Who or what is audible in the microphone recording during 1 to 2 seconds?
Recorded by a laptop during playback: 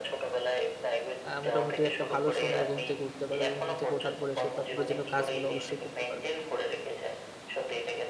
both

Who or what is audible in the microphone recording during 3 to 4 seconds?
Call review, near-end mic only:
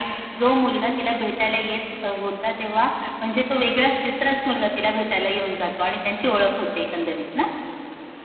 echo only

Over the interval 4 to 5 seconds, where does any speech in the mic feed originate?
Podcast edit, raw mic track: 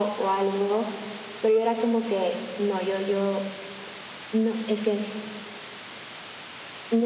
echo only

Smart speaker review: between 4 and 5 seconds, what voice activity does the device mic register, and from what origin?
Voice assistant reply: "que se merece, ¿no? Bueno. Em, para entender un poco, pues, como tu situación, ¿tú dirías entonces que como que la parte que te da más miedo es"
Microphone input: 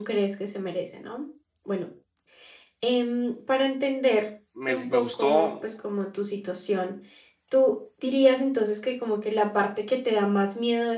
both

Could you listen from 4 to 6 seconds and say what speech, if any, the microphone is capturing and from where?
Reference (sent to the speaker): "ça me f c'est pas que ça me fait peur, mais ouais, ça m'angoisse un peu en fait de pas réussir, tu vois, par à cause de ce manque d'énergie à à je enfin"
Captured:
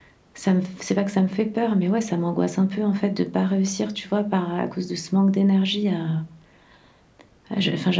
echo only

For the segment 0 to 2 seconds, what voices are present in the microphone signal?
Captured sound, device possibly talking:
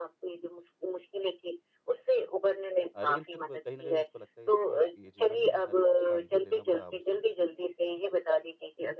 echo only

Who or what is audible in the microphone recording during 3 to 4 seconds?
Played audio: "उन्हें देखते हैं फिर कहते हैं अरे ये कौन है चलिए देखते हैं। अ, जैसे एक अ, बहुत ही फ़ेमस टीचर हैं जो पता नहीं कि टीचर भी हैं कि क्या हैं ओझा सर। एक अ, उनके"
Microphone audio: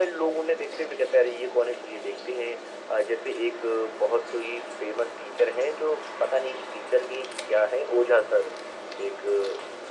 echo only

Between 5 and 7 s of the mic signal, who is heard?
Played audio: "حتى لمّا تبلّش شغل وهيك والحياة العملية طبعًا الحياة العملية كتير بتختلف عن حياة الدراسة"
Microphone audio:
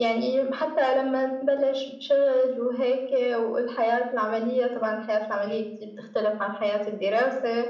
echo only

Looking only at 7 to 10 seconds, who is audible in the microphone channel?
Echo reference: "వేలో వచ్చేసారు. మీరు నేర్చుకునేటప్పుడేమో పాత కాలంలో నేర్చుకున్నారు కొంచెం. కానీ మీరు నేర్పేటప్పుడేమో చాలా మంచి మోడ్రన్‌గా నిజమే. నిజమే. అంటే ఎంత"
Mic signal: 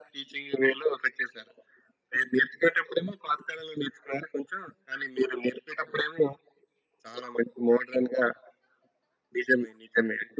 echo only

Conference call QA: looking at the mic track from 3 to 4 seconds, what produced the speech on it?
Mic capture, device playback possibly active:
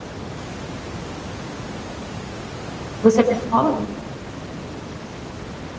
user only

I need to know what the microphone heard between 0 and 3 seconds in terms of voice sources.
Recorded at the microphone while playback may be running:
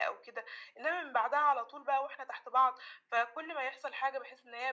echo only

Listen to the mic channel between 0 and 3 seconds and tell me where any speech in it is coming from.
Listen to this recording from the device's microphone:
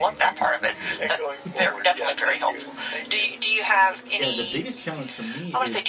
both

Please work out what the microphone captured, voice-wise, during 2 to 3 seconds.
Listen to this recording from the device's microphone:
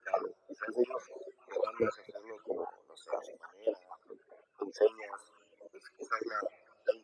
echo only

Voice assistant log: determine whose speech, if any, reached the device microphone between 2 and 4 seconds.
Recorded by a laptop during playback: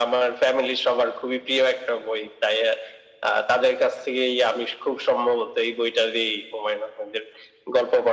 echo only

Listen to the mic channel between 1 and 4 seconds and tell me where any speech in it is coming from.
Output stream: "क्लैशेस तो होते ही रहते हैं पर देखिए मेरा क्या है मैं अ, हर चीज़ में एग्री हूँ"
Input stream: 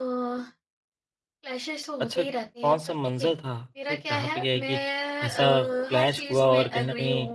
both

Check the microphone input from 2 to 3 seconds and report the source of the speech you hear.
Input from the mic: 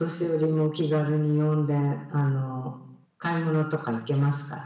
echo only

